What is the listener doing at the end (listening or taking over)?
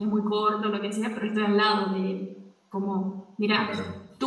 listening